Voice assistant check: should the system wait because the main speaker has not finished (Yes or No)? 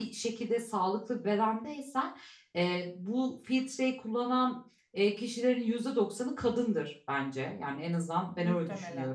Yes